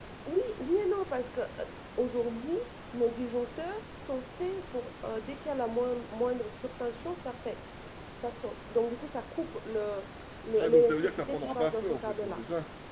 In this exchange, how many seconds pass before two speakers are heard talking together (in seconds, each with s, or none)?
10.6 s